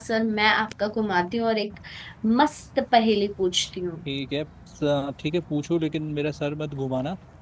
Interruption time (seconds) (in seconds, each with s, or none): none